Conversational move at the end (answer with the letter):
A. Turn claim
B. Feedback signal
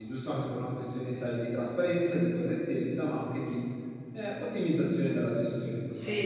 A